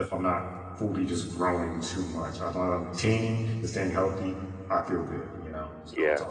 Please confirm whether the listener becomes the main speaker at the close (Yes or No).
Yes